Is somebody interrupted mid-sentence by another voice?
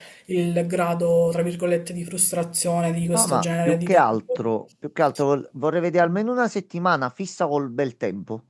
Yes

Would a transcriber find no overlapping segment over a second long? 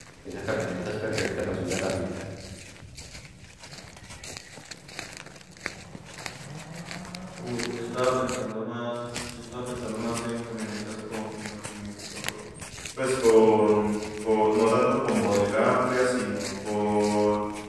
Yes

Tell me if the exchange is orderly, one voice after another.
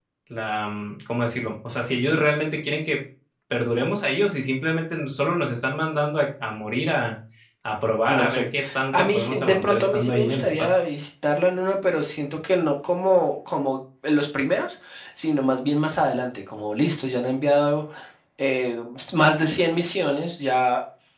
No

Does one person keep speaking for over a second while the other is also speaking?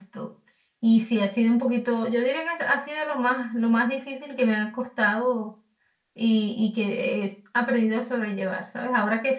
No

